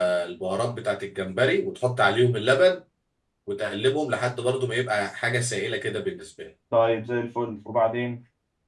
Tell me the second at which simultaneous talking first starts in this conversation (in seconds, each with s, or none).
none